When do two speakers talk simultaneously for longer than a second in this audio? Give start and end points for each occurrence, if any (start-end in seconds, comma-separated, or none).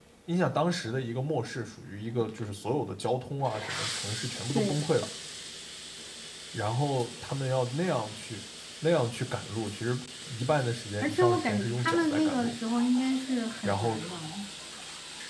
11.0-12.6